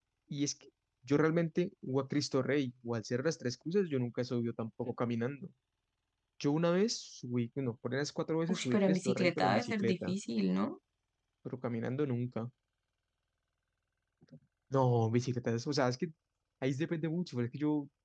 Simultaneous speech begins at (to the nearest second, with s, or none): 8 s